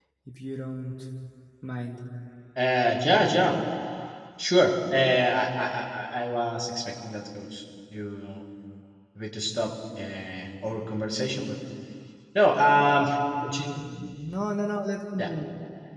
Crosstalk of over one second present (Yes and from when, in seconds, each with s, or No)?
No